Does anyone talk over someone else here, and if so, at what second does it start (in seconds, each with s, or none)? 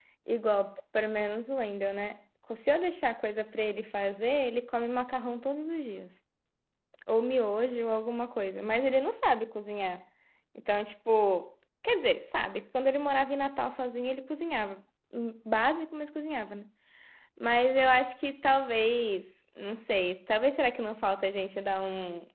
none